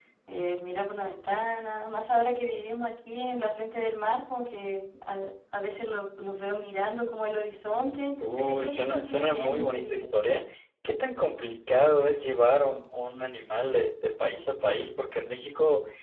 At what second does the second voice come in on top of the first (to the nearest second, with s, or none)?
8 s